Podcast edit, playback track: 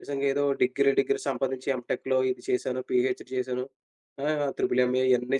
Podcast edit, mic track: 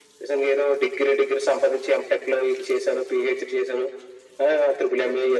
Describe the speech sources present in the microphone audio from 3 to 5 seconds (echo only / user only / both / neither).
echo only